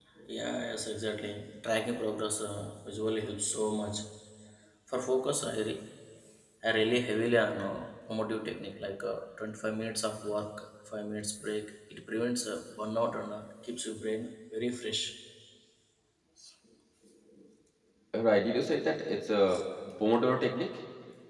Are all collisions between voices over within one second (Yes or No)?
Yes